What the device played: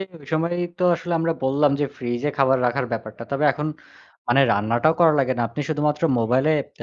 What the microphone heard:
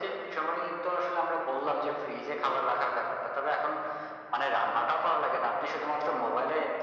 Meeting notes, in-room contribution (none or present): none